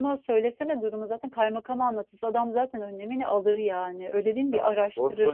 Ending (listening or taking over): taking over